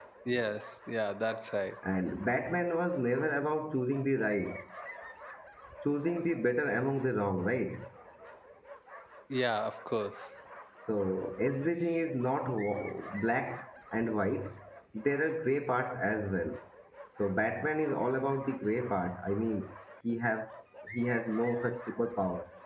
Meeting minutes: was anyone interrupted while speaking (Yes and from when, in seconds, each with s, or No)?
No